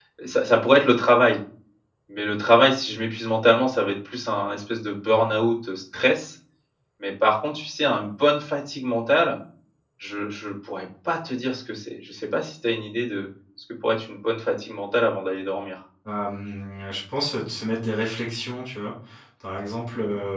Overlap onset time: none

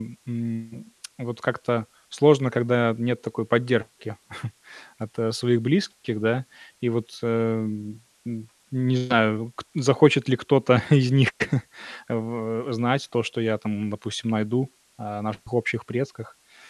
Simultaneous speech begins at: none

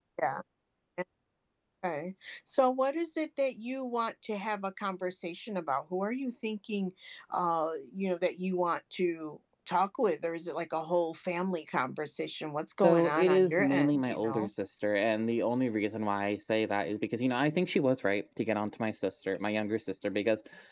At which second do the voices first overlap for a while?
12.8 s

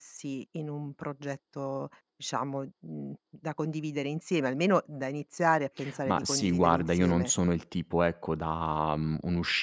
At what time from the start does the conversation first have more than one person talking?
6.0 s

